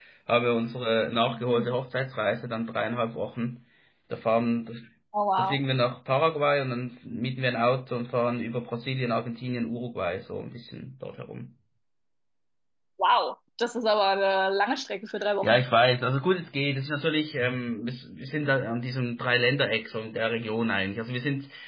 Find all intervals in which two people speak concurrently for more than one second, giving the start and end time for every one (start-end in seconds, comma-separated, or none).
none